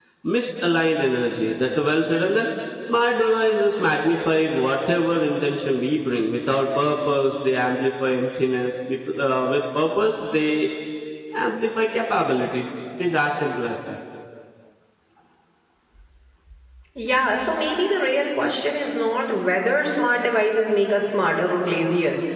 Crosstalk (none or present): none